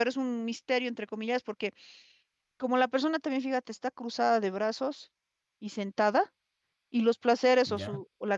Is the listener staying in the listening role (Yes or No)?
Yes